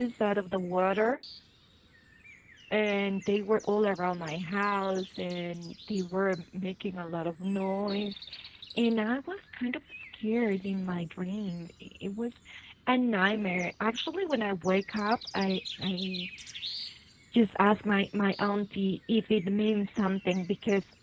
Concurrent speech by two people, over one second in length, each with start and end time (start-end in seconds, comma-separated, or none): none